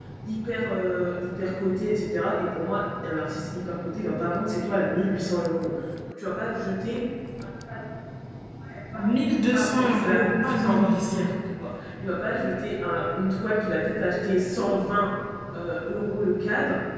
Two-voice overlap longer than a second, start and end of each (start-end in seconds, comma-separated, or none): 9.5-11.3